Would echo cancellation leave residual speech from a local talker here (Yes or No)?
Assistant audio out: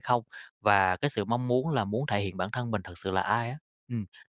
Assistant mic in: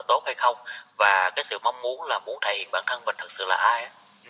No